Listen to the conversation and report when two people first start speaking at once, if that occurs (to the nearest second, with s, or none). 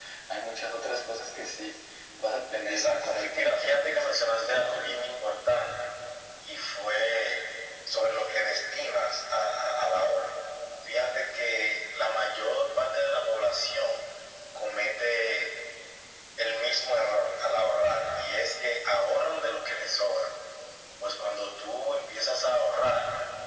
3 s